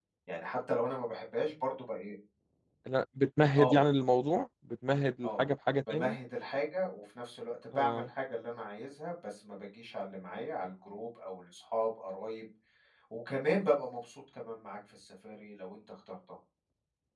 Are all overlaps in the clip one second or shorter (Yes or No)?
Yes